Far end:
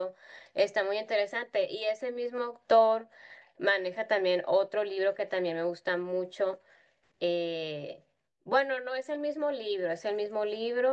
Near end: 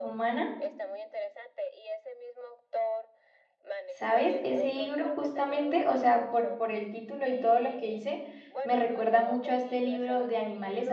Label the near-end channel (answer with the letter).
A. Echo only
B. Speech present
B